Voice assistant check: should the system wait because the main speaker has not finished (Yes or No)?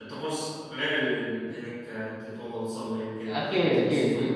No